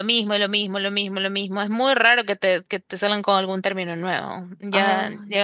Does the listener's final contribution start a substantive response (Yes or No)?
No